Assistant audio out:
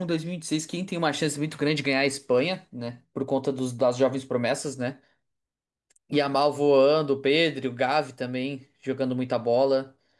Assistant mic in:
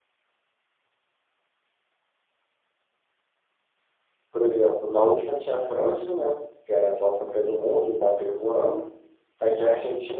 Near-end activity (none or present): present